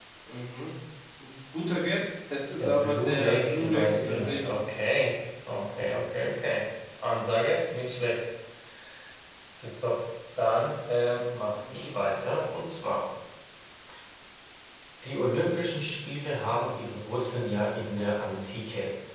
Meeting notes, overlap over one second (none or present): present